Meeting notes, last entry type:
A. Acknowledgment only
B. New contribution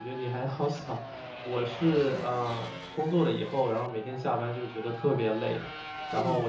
A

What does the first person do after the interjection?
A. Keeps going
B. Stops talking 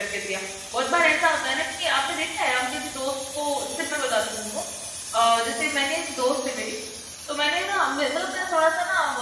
A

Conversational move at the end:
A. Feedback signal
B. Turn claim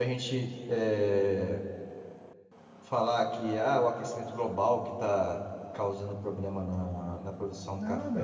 B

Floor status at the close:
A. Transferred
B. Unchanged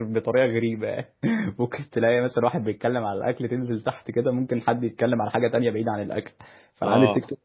B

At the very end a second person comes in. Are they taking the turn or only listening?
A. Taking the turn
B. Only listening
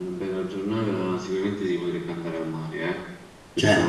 B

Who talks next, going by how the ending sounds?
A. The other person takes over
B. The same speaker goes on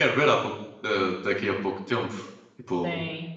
B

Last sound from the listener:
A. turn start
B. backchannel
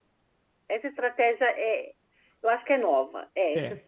B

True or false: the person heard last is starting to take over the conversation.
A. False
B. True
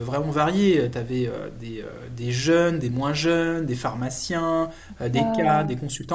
A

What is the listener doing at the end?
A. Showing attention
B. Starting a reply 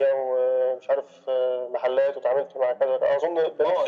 B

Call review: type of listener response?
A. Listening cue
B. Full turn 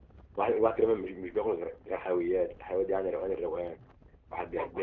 A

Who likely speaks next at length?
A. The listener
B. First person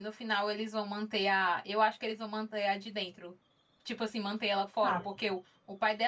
B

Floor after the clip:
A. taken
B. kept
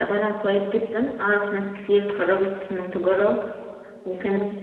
B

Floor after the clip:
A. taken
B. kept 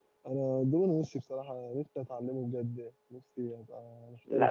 A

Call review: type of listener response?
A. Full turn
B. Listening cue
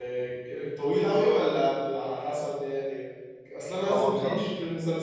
B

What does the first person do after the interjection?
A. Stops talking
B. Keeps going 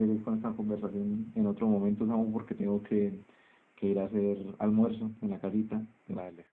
A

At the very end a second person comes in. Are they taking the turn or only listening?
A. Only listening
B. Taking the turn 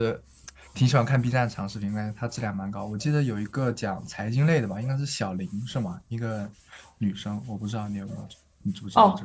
B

